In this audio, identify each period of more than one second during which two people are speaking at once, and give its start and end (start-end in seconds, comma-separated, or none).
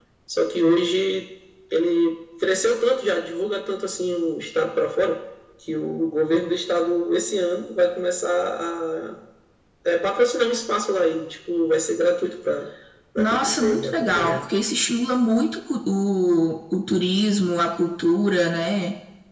13.2-14.4